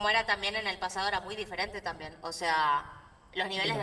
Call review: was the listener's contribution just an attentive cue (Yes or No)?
Yes